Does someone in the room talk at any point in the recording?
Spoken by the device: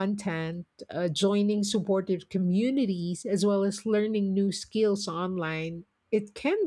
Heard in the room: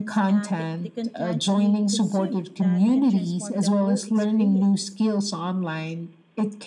Yes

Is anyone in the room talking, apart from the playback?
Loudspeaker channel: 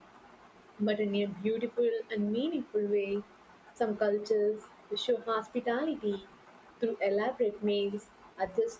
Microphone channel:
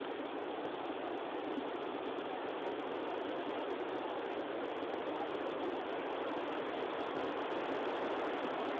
No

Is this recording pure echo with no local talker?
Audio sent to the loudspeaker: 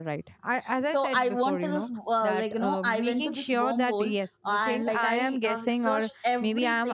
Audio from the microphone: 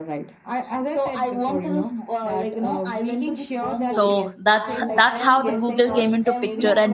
No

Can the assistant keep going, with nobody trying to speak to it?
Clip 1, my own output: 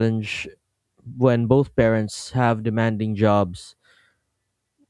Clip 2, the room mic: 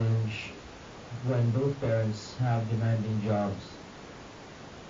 Yes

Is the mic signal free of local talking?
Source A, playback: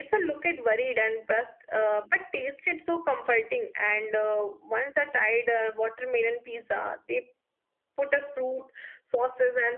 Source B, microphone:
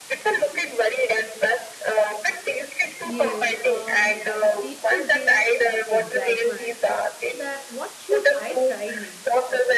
No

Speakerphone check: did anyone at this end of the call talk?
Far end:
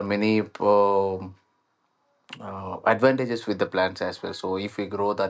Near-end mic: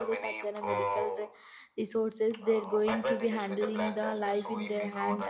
Yes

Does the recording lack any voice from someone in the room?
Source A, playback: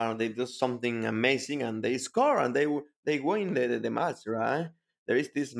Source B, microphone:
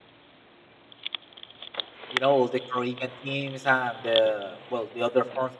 No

